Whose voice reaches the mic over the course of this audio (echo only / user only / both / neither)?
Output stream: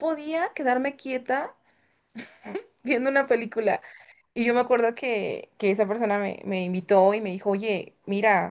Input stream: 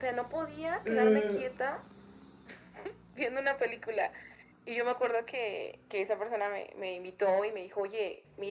both